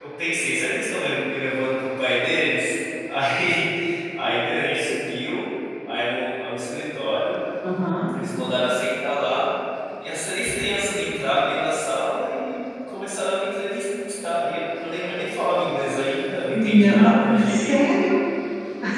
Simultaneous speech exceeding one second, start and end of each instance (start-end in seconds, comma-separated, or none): 16.5-17.8